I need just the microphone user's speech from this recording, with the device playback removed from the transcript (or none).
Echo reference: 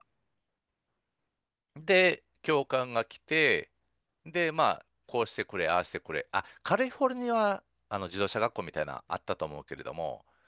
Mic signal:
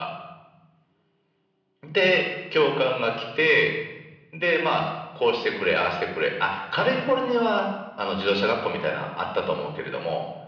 none